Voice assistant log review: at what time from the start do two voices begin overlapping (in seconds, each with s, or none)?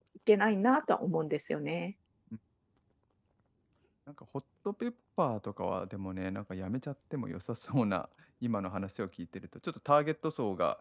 none